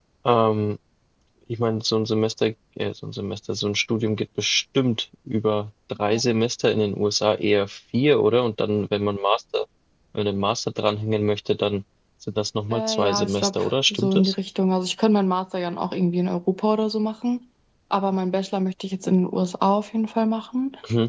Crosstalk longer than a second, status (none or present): present